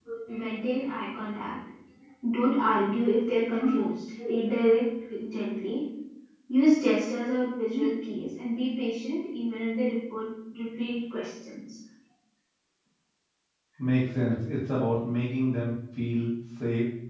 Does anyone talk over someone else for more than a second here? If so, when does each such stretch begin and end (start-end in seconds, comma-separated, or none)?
none